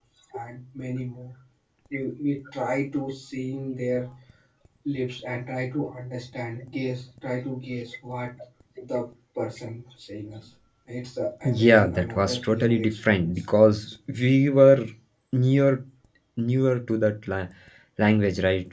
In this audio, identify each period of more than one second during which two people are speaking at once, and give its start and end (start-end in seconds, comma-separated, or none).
11.4-13.4